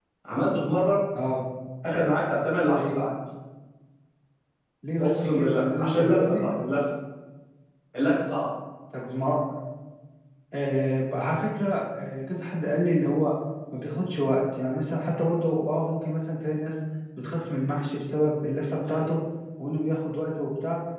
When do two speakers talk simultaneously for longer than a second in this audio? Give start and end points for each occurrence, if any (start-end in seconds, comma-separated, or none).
5.0-6.5